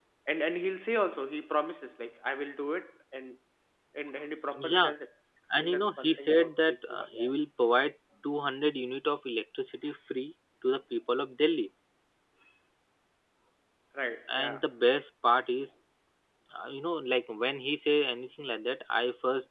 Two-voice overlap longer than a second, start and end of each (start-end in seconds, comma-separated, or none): 5.6-7.3